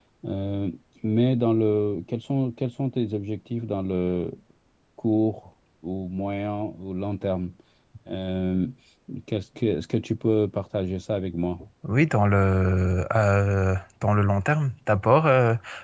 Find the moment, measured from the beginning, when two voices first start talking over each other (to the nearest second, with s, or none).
none